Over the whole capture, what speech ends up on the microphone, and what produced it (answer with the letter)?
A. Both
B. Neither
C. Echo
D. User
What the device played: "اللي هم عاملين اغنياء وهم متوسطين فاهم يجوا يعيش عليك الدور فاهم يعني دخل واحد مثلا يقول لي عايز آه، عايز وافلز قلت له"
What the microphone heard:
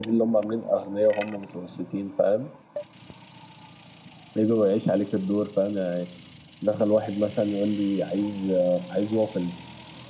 C